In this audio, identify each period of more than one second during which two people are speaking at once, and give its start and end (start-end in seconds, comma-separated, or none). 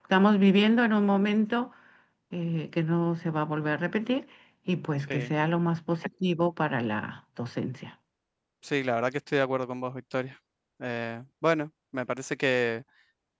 none